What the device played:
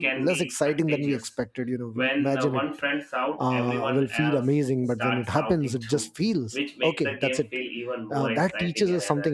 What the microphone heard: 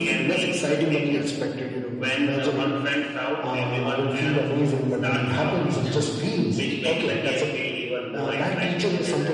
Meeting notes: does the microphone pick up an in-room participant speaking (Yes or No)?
No